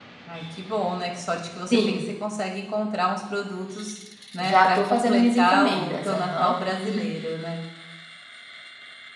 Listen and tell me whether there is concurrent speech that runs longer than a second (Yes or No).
Yes